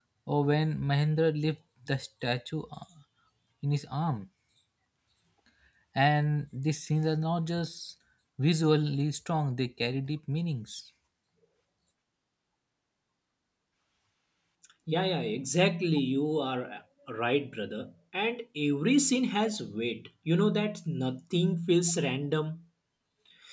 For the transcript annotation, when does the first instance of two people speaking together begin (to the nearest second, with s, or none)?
none